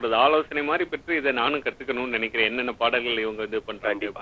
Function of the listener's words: taking over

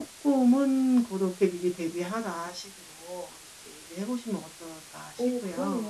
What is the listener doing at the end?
taking over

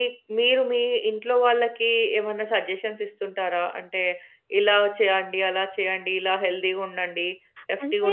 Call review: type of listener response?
taking over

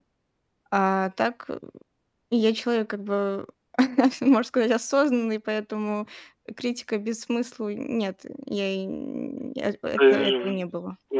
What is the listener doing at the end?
taking over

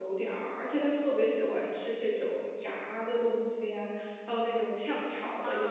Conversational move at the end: listening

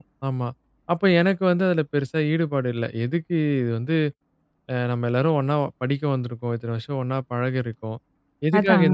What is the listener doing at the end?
listening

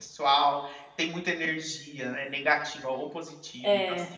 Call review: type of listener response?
listening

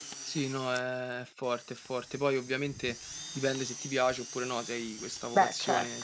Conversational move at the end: listening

